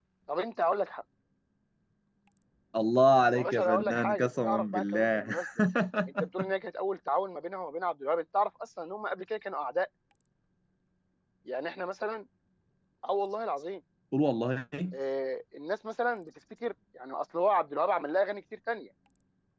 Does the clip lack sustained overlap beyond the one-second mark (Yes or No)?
No